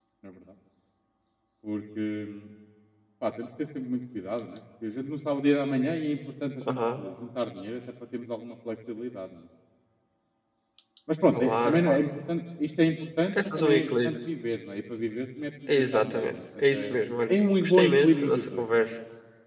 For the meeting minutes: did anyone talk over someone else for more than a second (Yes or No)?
Yes